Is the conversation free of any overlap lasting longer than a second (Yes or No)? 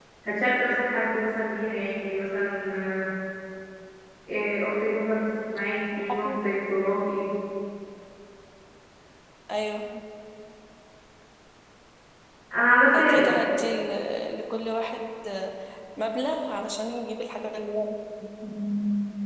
Yes